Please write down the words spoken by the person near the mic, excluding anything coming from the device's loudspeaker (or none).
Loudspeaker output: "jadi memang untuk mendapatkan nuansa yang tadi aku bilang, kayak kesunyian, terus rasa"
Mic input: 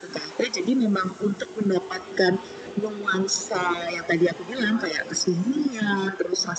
none